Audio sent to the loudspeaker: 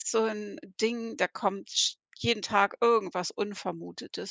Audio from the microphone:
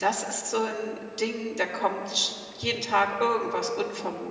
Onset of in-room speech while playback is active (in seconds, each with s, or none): none